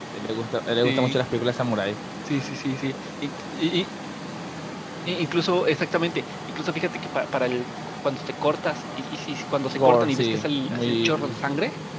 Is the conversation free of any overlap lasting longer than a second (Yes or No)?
No